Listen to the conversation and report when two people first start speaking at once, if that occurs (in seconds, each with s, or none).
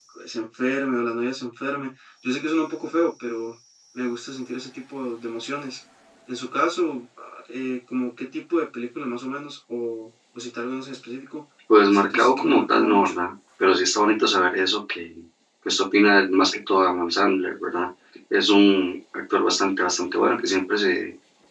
11.9 s